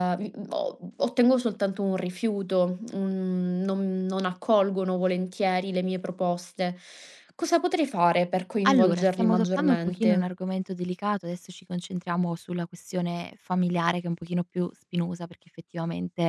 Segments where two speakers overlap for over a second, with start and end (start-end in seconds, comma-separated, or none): 8.7-10.3